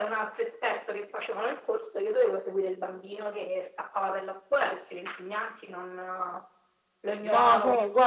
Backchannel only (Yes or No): No